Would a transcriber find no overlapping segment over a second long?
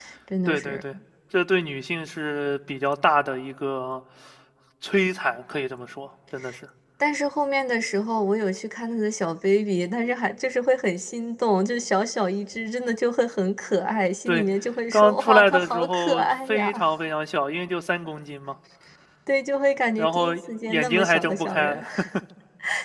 No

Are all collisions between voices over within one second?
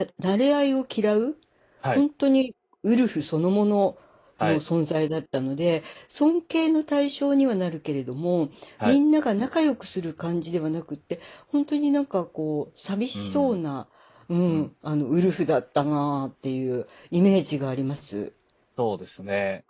Yes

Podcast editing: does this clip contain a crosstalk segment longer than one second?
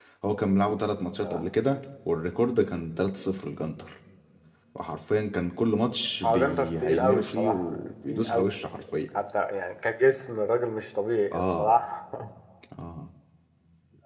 Yes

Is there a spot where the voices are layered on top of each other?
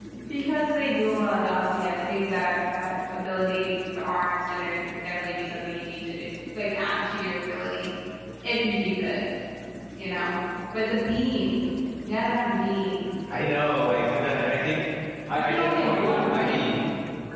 Yes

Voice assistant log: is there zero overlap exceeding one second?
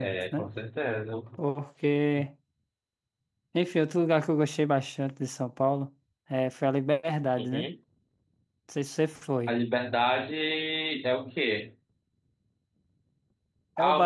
Yes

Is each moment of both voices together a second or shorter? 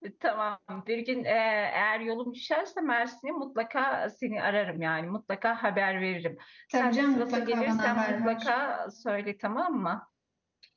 No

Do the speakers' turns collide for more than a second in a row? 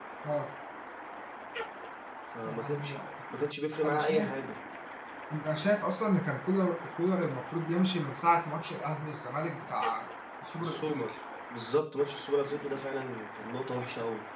No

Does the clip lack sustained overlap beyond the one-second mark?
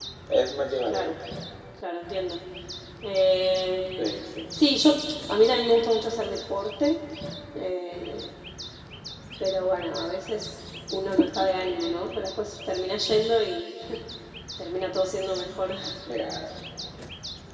Yes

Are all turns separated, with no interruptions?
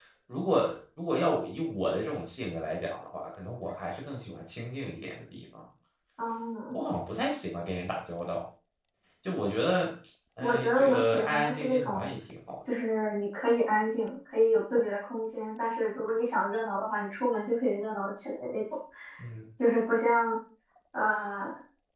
No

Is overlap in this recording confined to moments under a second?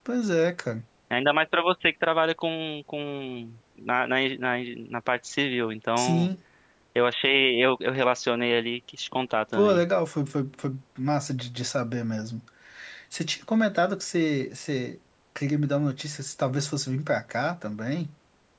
Yes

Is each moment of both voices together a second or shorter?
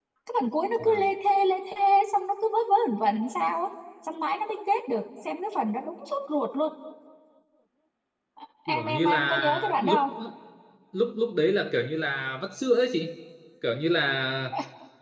No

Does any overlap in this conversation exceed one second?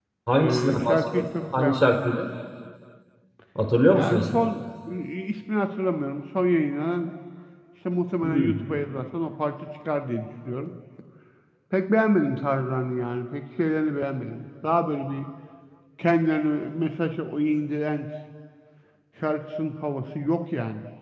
Yes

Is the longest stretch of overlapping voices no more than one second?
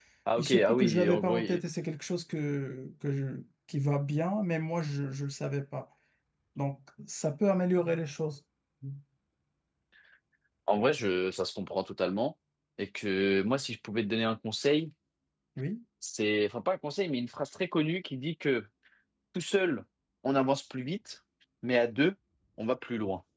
No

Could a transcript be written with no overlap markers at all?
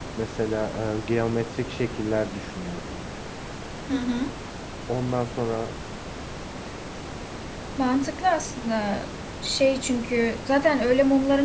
Yes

